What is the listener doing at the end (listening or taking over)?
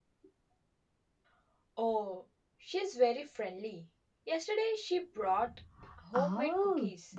taking over